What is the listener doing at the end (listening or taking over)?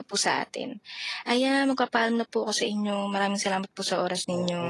taking over